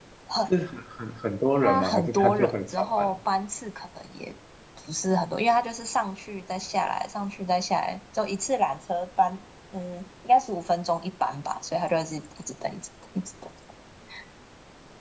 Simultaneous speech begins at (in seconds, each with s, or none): 1.6 s